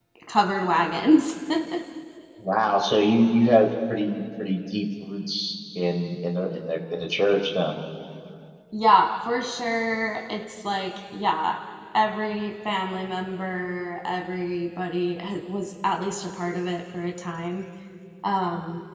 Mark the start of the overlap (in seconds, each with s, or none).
none